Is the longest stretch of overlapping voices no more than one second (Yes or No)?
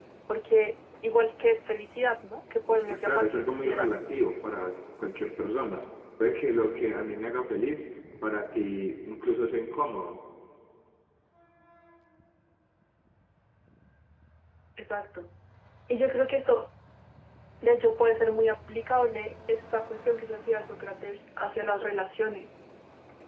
No